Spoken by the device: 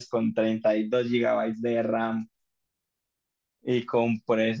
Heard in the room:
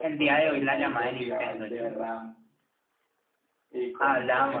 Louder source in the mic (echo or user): user